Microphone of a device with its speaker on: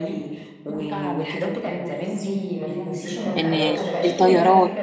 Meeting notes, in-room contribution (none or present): present